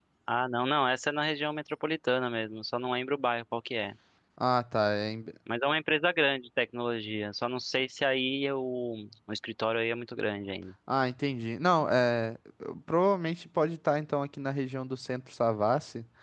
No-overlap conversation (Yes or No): Yes